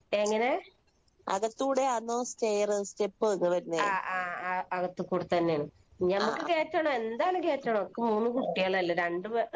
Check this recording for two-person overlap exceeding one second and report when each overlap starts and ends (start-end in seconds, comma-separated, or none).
none